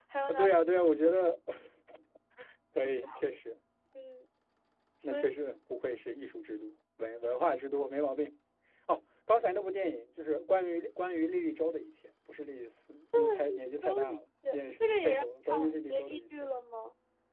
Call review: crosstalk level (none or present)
present